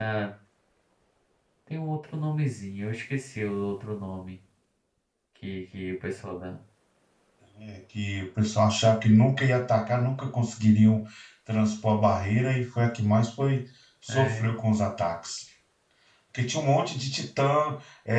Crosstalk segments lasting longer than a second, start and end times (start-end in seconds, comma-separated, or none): none